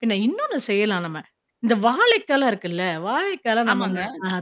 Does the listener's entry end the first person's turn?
No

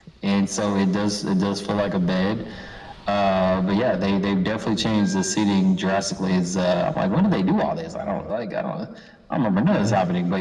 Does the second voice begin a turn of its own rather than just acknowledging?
No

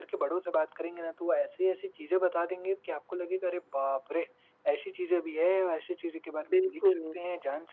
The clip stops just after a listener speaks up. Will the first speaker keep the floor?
Yes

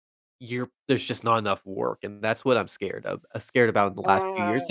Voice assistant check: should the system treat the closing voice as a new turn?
No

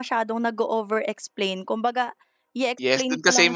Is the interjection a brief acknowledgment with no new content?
No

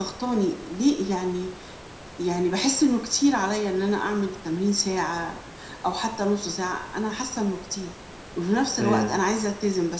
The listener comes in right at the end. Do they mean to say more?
No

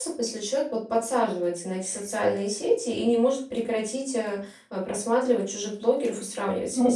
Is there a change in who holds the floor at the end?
Yes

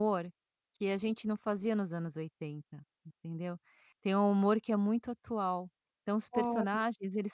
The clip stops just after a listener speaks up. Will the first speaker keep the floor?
Yes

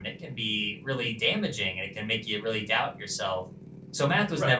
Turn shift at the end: No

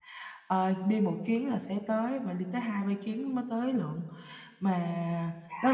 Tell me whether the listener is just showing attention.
Yes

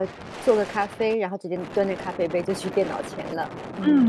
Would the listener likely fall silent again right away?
No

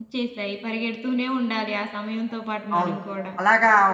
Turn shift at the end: Yes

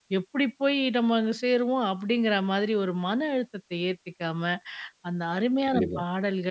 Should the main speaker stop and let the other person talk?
No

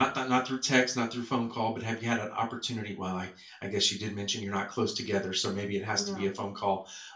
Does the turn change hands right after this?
No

